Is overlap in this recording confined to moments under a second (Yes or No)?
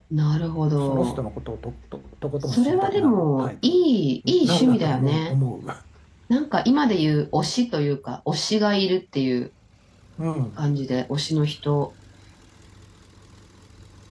No